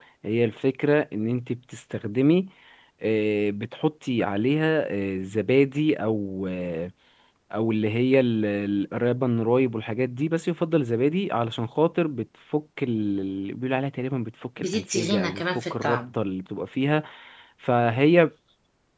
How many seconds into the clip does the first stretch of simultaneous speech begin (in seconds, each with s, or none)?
14.6 s